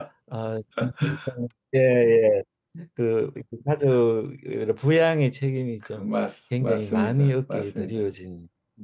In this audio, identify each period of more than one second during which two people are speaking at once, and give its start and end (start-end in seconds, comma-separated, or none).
6.6-8.0